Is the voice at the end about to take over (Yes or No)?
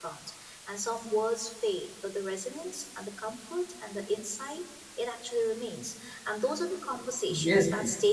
No